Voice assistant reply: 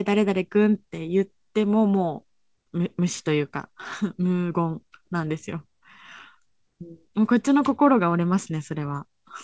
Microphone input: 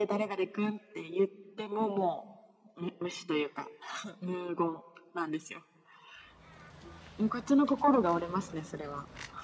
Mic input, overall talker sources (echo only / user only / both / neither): echo only